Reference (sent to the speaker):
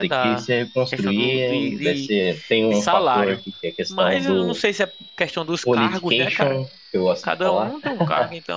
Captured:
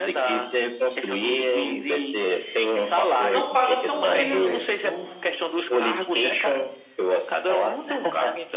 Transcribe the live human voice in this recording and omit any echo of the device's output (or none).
Não paga tão bem, velho. Eu,